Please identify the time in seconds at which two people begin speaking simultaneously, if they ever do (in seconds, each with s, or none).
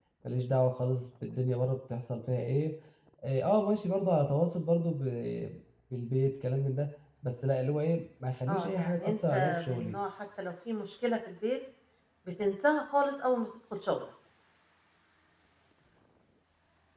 8.5 s